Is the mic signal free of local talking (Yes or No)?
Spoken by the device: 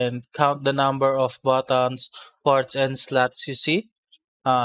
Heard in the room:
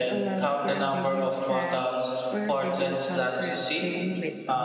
No